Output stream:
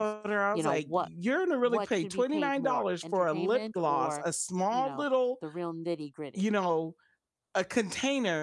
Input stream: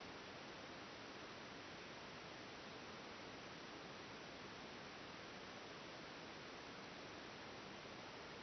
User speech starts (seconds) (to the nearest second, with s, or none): none